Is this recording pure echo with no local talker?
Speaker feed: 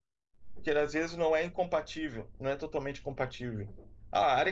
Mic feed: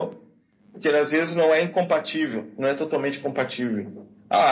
Yes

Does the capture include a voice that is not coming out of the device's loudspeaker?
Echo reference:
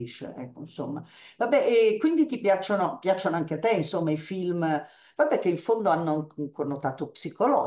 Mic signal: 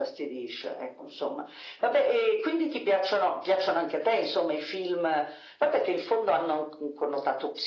No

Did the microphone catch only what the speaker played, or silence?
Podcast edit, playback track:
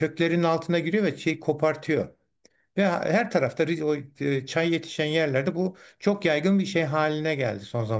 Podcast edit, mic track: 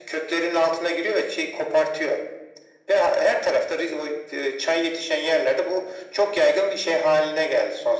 Yes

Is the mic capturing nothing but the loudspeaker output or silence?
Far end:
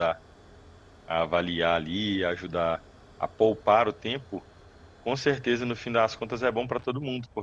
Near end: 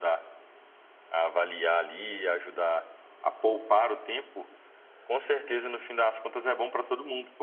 Yes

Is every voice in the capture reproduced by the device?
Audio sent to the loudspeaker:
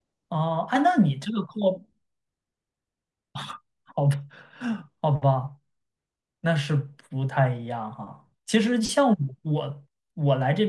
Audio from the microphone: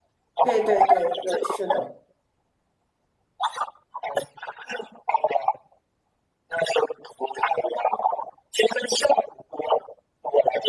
No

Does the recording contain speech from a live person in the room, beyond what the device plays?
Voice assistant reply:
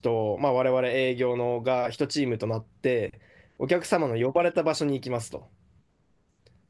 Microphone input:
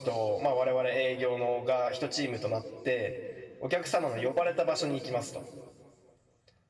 No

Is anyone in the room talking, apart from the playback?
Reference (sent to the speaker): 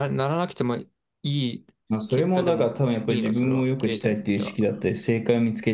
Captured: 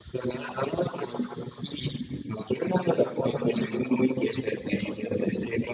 Yes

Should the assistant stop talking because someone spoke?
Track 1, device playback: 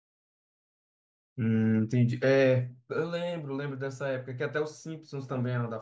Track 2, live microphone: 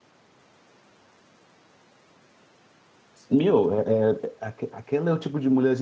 Yes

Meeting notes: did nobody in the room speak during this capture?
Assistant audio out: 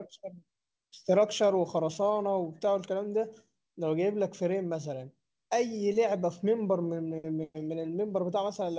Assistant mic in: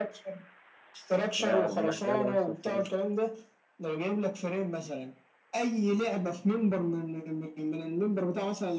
No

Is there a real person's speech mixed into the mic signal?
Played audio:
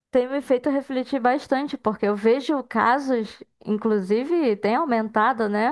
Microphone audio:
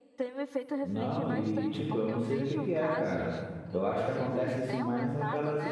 Yes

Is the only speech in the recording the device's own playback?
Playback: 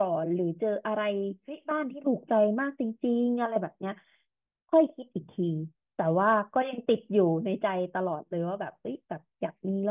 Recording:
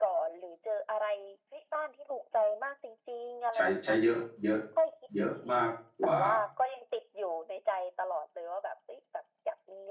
No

